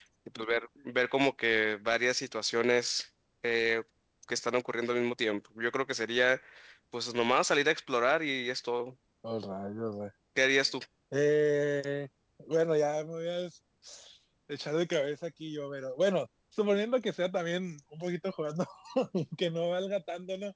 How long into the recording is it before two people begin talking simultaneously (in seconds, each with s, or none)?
none